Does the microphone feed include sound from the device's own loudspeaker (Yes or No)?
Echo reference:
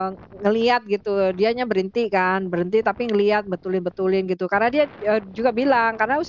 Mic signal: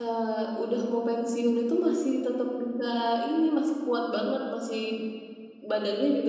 No